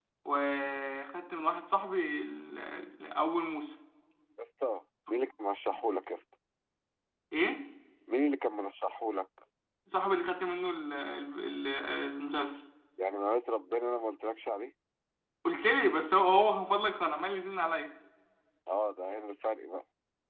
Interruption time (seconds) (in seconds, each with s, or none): none